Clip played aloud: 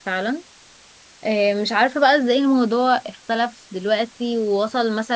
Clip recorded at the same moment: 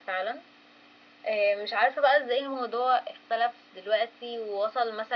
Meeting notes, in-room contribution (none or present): none